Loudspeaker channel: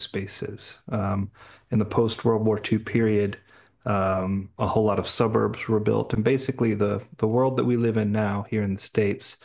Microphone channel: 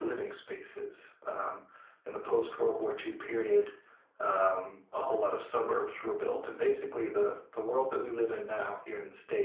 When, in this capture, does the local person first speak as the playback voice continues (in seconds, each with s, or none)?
none